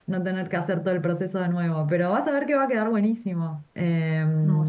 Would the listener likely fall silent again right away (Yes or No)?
Yes